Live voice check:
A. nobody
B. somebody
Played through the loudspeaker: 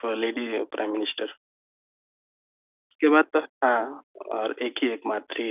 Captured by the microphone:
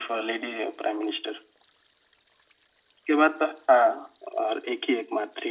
A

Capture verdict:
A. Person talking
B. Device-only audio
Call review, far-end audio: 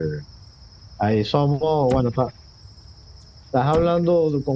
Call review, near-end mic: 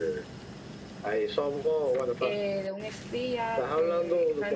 A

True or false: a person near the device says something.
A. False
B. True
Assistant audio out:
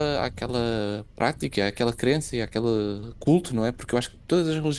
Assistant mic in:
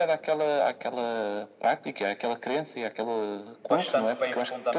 B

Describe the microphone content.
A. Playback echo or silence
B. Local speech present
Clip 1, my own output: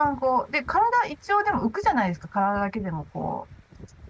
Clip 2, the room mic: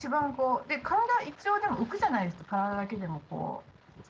A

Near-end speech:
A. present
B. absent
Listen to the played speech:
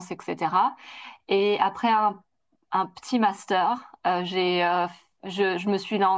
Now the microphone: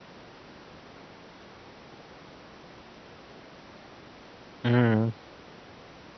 A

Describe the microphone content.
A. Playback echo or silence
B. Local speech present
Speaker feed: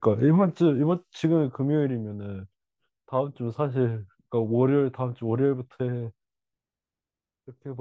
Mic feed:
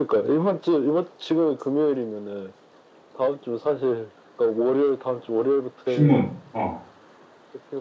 B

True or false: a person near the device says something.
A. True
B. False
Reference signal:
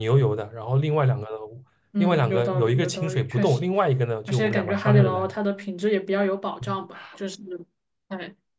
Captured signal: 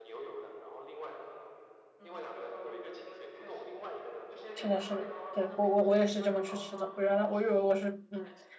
A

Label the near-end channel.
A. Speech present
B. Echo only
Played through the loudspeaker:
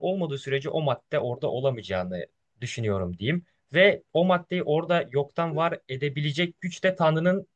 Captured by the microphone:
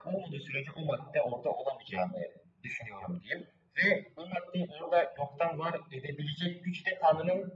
B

